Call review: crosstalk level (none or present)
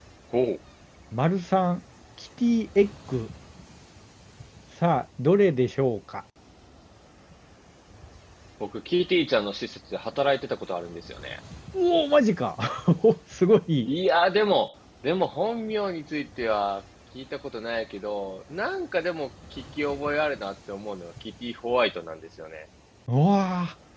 none